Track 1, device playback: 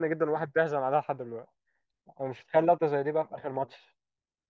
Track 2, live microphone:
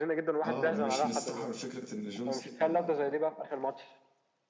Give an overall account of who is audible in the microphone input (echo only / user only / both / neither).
both